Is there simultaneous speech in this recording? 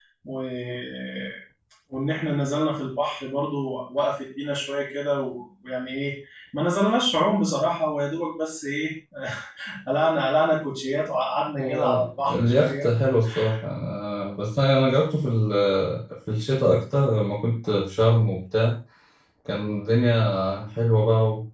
Yes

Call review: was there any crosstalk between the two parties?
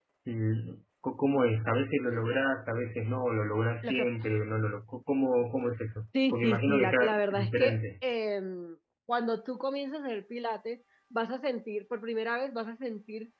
Yes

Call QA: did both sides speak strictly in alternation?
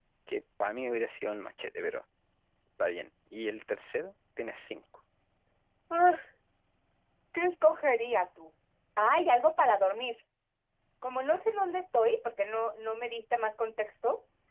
Yes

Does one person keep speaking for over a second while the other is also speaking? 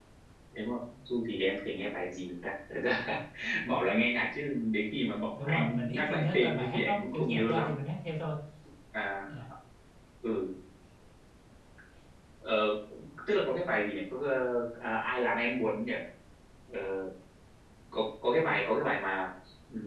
Yes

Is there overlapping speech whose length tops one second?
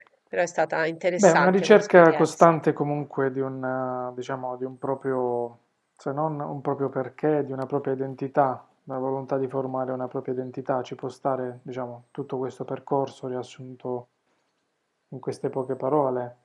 Yes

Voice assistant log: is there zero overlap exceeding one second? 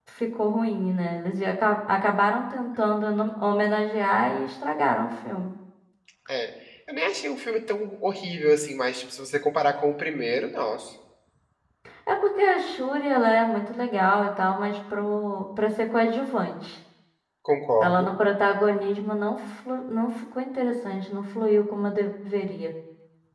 Yes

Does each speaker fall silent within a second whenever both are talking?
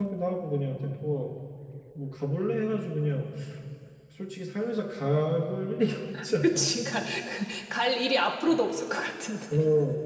Yes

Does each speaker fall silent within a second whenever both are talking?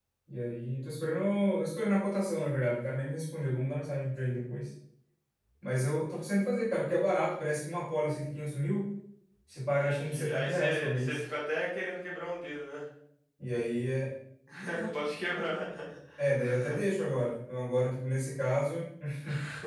No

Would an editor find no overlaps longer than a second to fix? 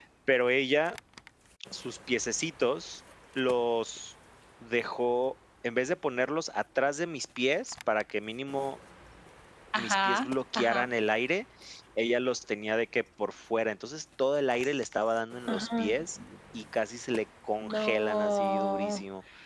No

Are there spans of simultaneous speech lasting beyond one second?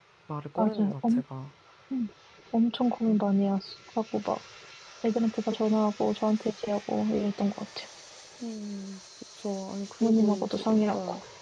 Yes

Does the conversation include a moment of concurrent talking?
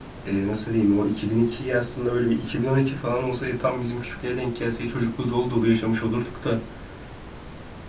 No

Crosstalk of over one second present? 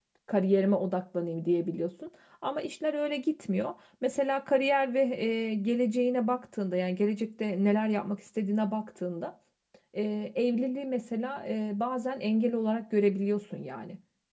No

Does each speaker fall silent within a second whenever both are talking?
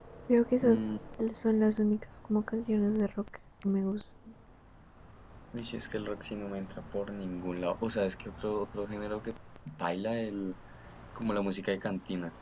Yes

